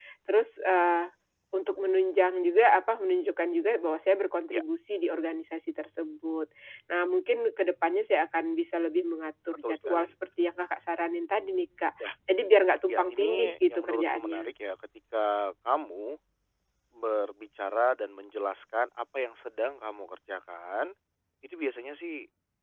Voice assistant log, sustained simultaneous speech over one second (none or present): present